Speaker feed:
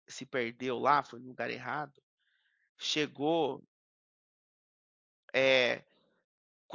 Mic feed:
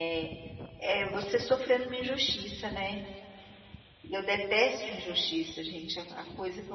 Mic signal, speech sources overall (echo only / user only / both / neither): user only